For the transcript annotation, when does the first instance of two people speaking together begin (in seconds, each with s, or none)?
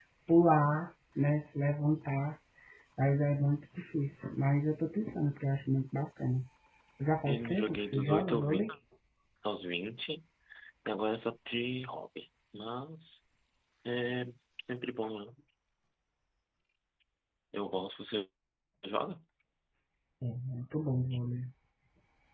7.3 s